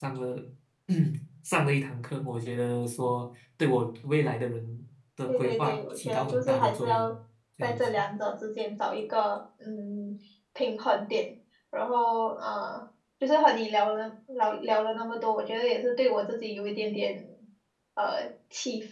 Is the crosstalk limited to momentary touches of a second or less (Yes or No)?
No